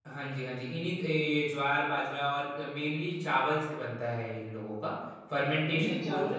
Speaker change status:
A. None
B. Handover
B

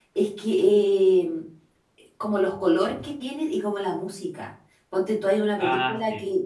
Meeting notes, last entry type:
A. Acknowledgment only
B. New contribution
A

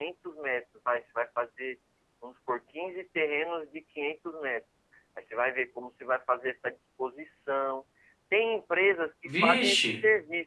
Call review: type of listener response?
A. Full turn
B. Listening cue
B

